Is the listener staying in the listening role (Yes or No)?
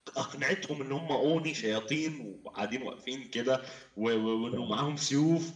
Yes